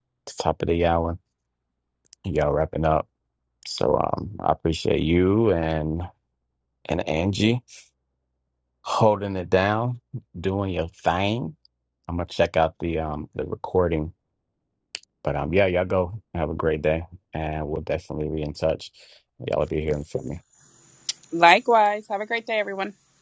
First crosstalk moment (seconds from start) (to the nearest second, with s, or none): none